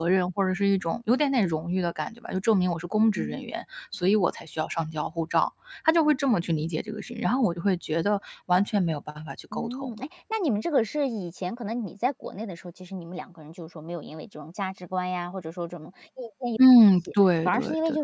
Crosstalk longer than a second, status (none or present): none